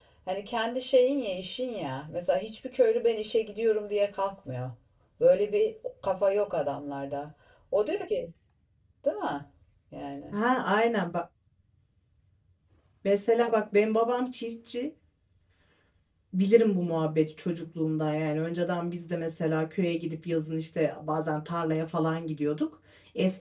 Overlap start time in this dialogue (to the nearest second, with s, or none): none